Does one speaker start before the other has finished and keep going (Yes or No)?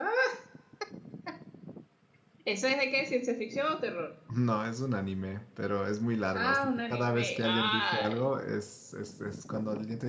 Yes